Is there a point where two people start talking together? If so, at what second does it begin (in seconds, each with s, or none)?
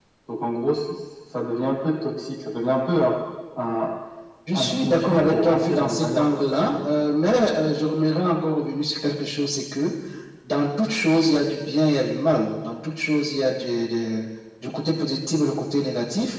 4.5 s